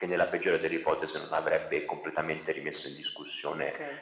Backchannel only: No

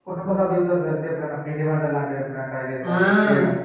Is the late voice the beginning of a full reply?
Yes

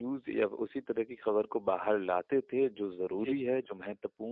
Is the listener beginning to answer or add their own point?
No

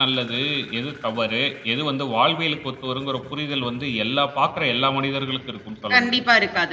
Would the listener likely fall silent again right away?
No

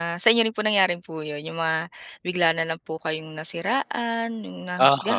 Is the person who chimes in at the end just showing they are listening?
No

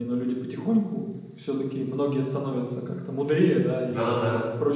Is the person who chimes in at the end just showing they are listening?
Yes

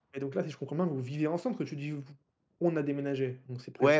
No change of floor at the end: No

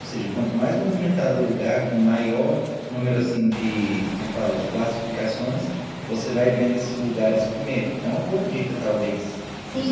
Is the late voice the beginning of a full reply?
Yes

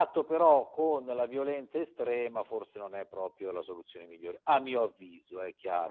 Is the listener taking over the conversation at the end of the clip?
Yes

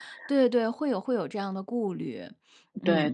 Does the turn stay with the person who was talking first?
No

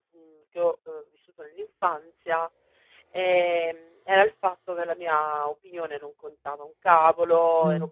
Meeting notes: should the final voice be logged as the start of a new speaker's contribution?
No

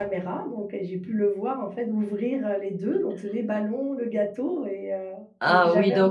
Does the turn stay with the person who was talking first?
No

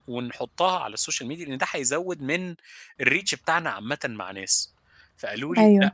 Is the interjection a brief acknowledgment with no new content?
Yes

